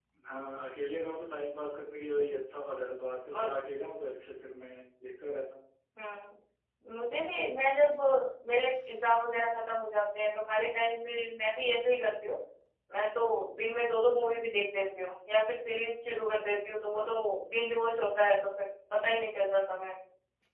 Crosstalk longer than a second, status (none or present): none